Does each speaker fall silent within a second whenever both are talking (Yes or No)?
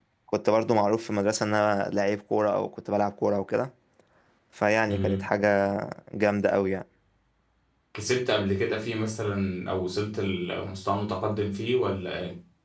Yes